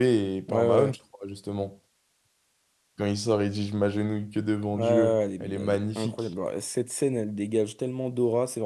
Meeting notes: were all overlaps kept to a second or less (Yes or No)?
No